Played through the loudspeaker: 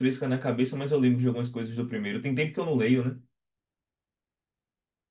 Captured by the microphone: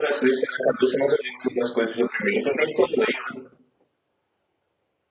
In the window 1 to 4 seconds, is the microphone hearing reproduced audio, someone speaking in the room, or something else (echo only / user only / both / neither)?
echo only